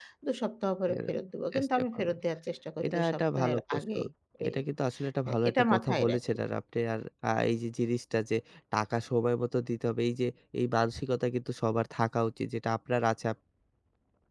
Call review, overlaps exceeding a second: present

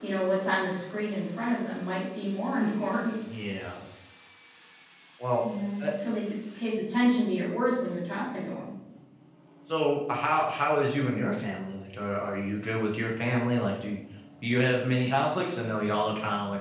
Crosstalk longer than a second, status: none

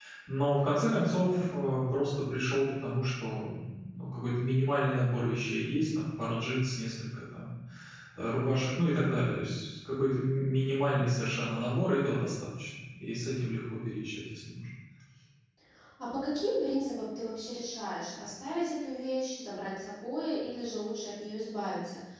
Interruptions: none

